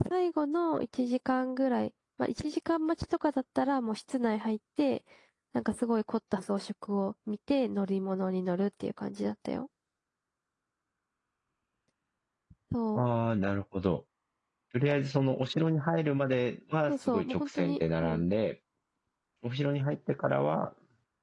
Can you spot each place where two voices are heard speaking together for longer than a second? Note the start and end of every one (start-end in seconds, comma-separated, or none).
16.9-18.2